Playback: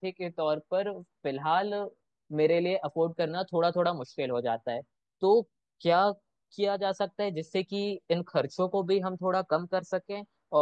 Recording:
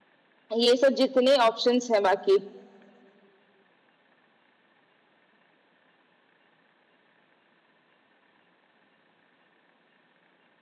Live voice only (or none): ये सब जितने ऑप्शंस हैं बाकी